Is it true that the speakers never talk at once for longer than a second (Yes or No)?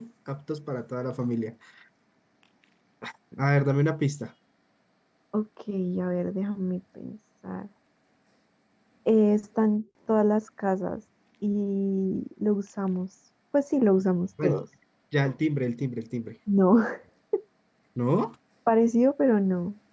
Yes